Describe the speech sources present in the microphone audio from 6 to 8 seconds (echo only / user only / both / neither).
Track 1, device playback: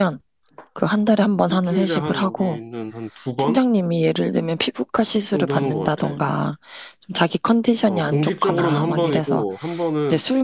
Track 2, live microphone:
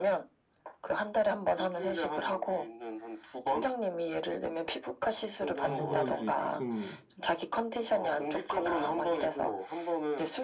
both